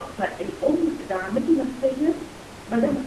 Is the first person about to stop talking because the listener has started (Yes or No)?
No